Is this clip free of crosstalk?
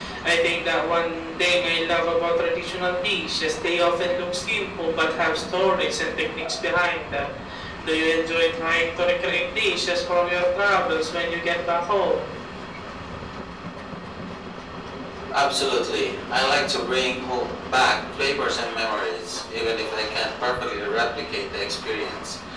Yes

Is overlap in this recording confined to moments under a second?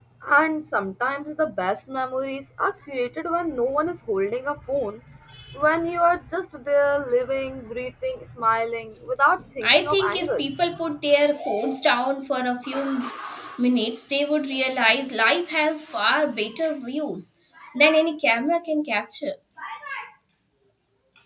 No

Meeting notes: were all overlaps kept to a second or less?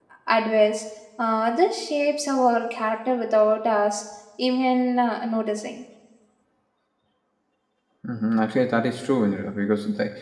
Yes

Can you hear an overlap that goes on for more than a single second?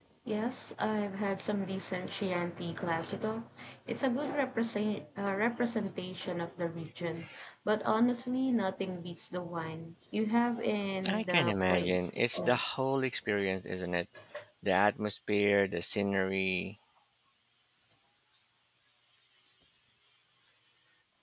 Yes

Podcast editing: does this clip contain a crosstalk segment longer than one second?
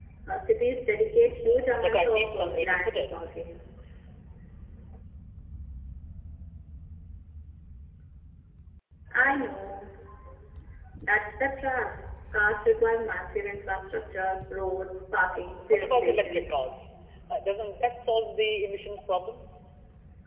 Yes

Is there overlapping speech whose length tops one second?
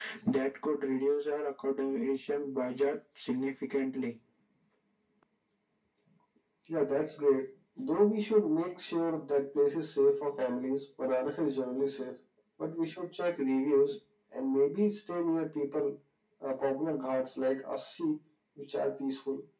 No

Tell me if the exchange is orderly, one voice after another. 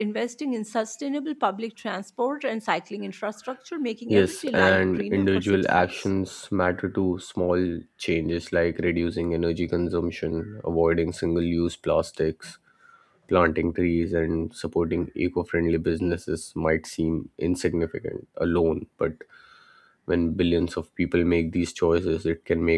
No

